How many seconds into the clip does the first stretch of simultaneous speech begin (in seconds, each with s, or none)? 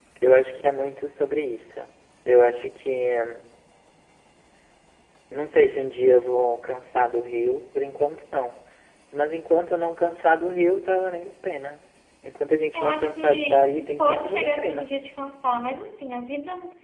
12.7 s